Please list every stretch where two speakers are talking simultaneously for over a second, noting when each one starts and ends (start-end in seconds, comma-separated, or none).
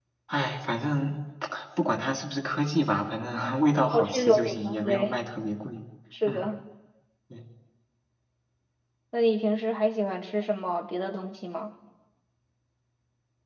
3.9-5.2